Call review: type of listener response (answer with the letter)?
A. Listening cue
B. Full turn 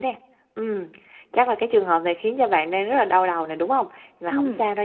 A